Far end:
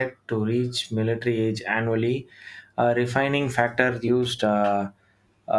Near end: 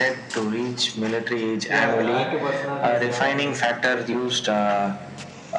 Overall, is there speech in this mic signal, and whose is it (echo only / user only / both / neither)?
both